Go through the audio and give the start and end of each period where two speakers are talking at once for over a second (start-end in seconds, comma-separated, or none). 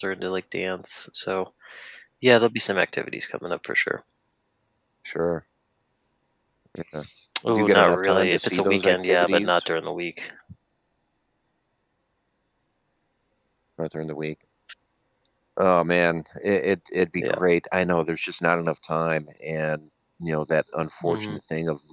7.5-9.6